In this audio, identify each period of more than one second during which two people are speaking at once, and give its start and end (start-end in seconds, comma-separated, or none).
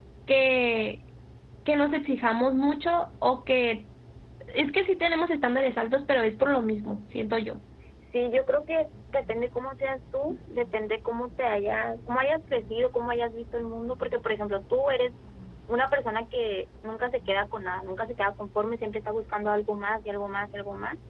none